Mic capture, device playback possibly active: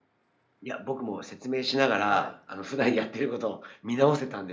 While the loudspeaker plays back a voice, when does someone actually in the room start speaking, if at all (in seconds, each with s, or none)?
2.1 s